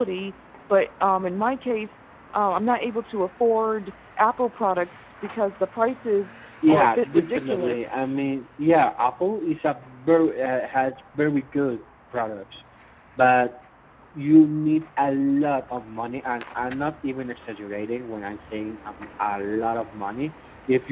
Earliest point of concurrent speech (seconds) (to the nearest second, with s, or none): 7 s